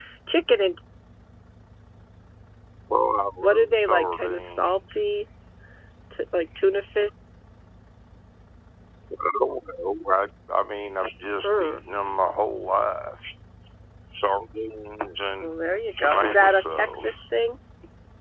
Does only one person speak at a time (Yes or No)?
No